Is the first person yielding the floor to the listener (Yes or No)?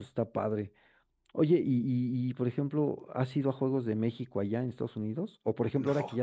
No